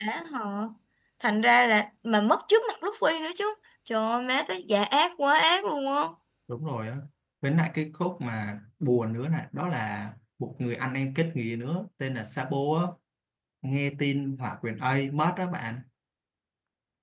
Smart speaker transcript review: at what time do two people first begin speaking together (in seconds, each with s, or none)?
none